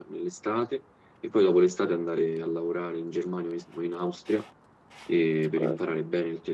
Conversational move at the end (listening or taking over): listening